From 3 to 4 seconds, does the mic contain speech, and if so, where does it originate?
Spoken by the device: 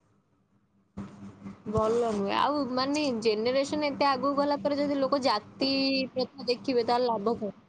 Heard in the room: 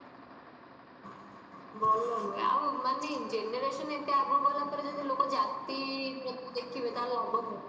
echo only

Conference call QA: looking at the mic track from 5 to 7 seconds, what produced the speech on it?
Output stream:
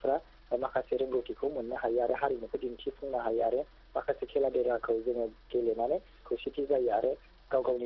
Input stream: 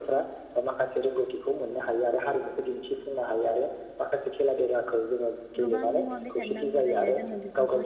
both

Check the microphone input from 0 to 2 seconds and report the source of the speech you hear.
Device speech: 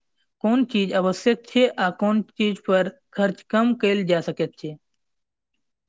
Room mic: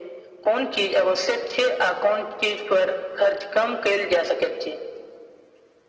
echo only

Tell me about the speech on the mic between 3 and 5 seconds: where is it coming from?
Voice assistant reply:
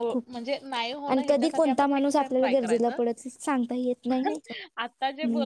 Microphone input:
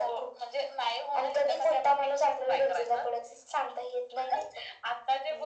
echo only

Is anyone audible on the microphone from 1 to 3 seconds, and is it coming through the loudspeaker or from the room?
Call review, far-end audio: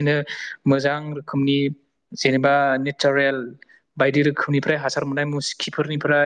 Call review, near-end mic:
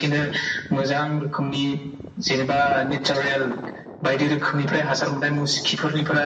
echo only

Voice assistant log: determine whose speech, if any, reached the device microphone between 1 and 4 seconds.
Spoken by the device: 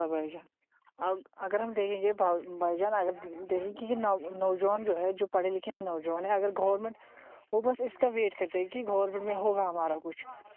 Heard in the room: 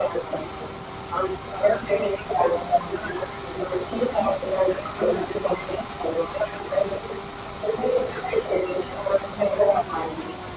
echo only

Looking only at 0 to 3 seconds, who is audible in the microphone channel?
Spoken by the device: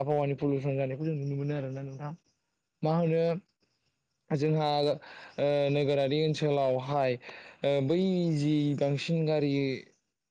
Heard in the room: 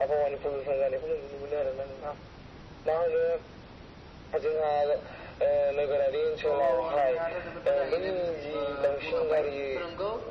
echo only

